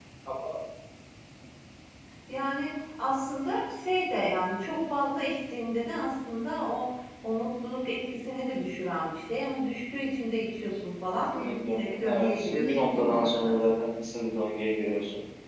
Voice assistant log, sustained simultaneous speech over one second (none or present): present